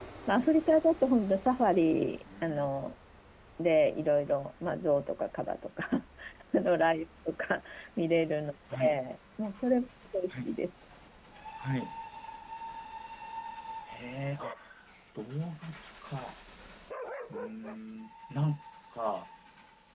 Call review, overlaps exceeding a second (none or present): none